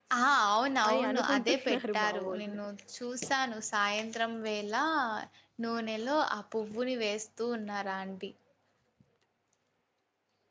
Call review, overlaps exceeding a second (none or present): present